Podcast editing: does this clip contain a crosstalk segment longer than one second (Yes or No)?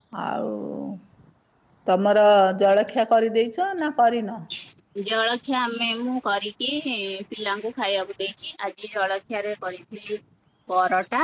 No